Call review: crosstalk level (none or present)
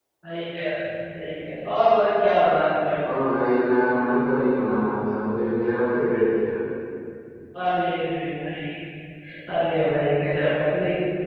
none